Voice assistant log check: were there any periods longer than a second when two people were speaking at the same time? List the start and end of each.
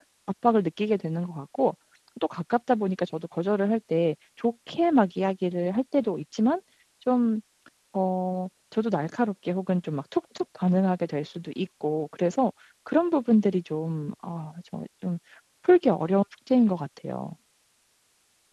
none

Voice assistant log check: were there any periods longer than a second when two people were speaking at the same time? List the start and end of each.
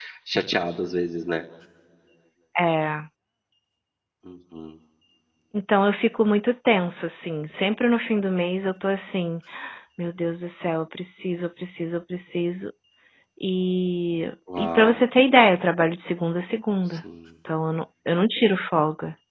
none

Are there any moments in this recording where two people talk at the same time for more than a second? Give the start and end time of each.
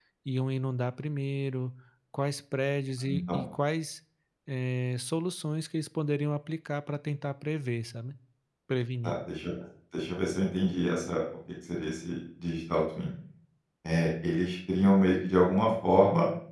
none

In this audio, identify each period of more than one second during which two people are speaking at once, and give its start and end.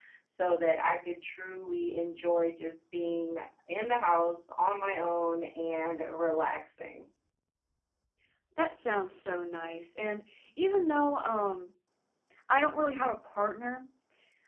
none

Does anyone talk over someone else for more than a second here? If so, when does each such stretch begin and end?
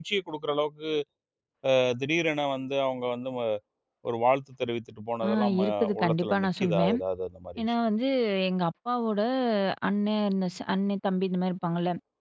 5.3-7.0

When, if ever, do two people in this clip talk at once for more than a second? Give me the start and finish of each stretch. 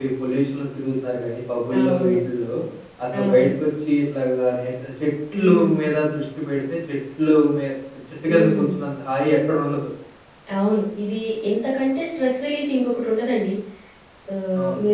none

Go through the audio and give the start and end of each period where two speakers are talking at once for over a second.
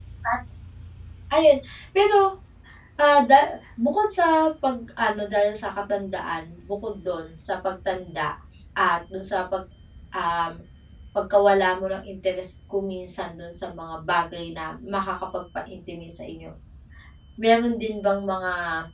none

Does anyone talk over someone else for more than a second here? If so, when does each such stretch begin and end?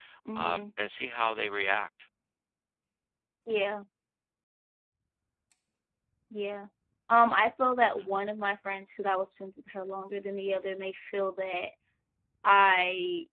none

